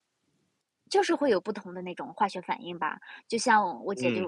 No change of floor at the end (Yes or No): Yes